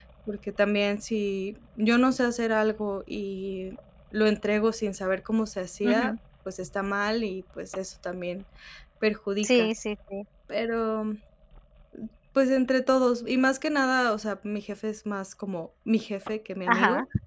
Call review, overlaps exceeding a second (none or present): none